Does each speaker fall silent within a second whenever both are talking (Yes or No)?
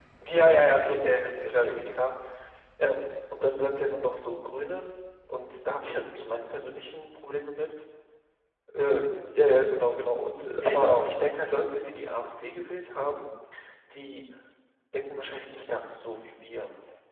No